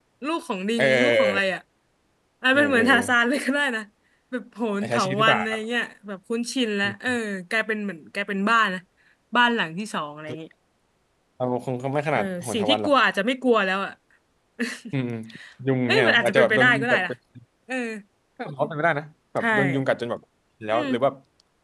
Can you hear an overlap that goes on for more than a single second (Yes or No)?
Yes